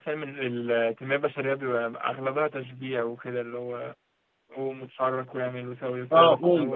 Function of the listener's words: taking over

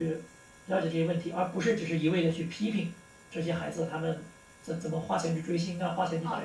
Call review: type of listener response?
taking over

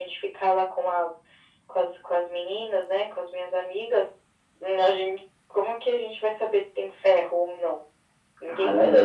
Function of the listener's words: taking over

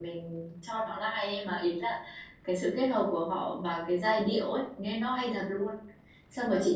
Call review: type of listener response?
listening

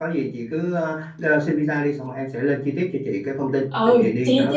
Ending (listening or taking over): taking over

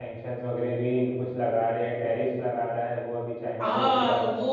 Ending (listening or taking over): taking over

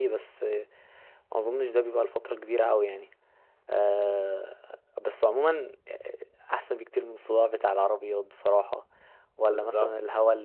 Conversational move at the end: listening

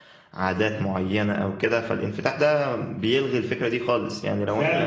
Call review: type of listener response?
taking over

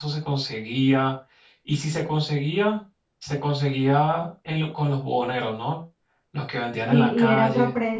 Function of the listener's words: taking over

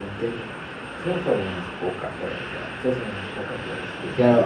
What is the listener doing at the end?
taking over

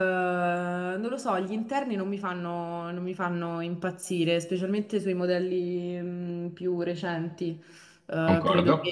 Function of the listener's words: listening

